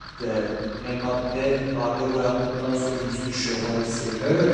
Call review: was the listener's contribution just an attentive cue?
No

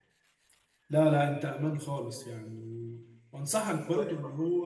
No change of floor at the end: Yes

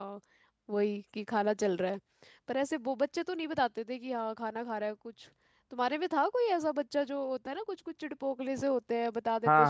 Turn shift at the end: Yes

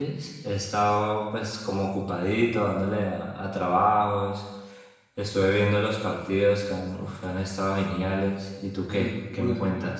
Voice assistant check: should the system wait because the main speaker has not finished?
No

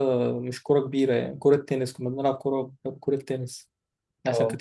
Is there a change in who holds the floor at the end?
No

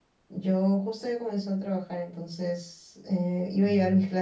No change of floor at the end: Yes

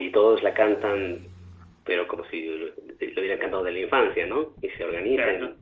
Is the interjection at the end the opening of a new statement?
No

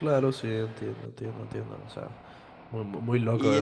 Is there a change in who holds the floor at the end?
Yes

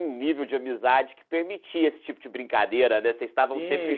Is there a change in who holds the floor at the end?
Yes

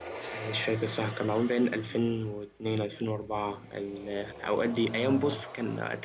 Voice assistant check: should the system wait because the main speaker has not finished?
Yes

